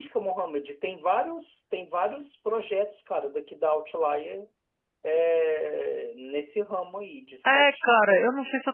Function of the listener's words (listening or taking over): taking over